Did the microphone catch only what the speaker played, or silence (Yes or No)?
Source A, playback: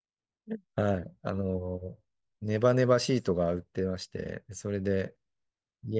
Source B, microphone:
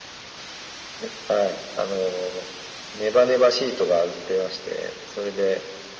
Yes